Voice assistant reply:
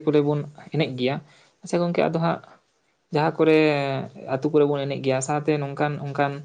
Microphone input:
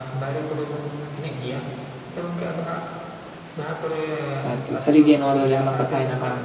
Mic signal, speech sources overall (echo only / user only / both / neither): both